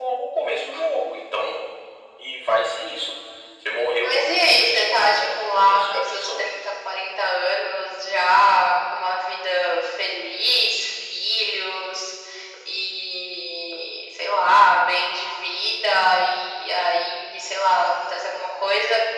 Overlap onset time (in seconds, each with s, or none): 4.0 s